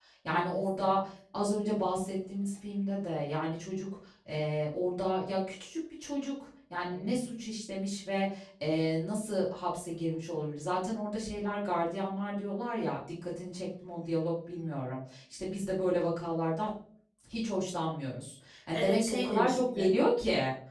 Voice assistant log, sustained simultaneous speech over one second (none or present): present